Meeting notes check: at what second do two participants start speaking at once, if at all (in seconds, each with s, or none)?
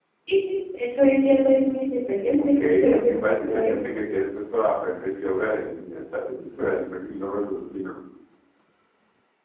2.4 s